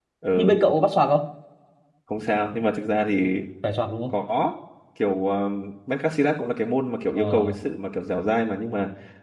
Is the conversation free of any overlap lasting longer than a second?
Yes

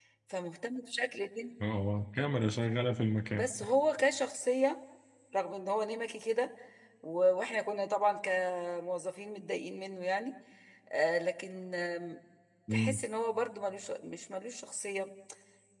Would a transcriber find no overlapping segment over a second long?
Yes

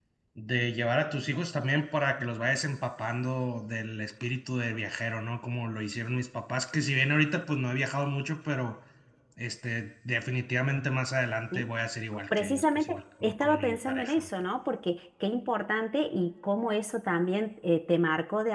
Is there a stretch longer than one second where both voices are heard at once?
Yes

